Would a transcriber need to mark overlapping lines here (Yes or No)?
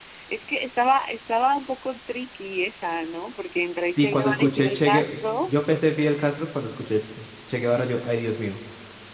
Yes